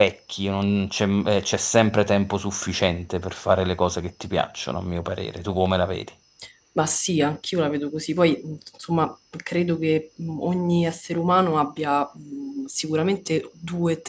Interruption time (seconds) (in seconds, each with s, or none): none